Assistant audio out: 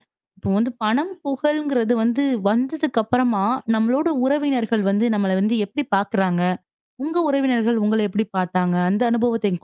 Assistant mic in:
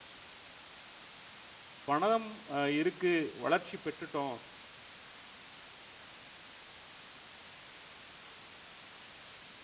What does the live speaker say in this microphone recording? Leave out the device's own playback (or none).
பணம் அ இருக்கு, வளர்ச்சி பெற்றுட்டோம்